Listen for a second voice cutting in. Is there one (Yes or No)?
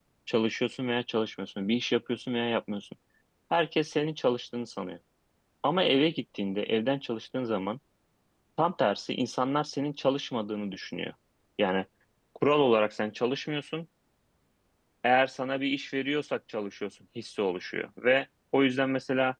No